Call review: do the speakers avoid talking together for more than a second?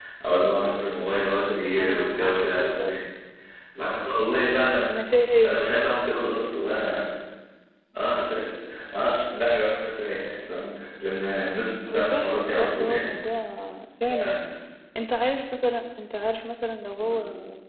No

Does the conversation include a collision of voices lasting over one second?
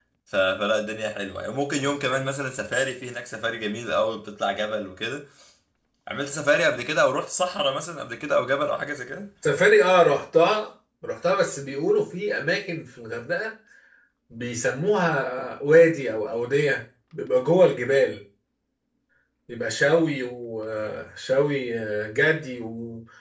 No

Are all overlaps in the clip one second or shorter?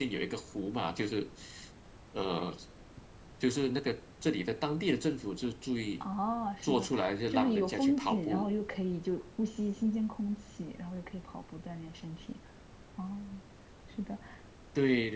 No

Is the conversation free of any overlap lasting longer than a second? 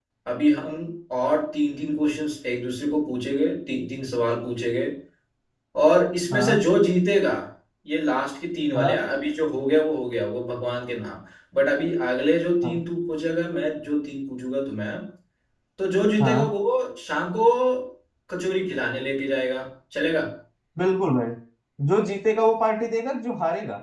Yes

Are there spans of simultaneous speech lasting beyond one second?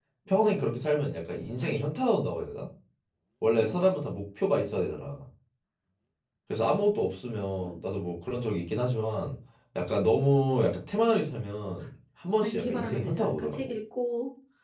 Yes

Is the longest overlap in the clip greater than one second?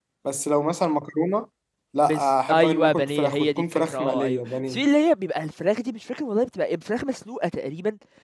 Yes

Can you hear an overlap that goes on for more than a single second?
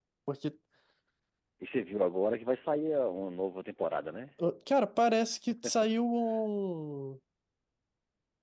No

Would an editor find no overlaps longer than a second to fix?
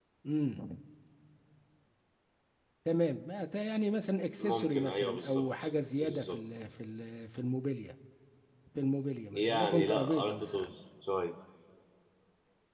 No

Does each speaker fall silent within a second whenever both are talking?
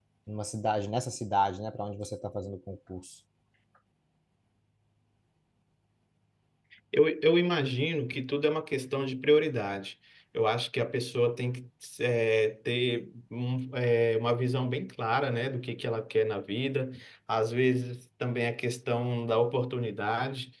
Yes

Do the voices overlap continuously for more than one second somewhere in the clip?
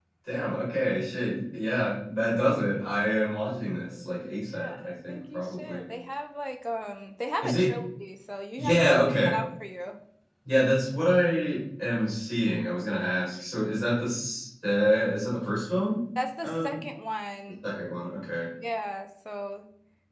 Yes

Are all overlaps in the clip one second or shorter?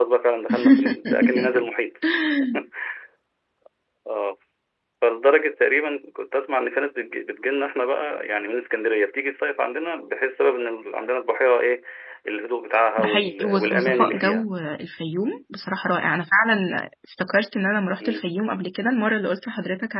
No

